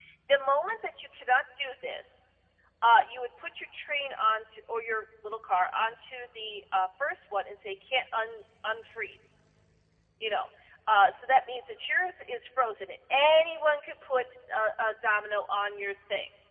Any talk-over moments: No

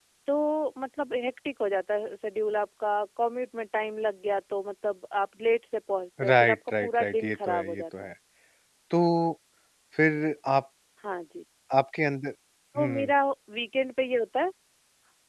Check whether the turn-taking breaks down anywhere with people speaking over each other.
Yes, from 6.2 s

